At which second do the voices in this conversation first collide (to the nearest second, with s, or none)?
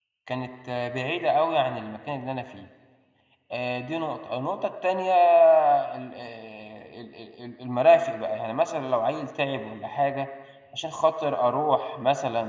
none